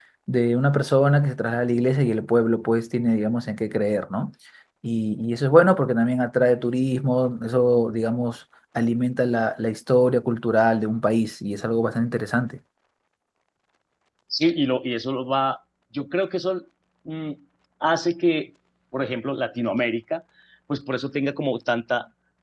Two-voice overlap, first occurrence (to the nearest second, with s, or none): none